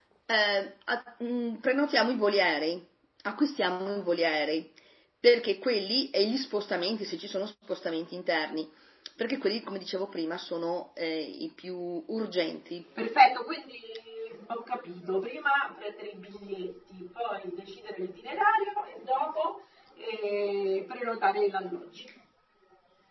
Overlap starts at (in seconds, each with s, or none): none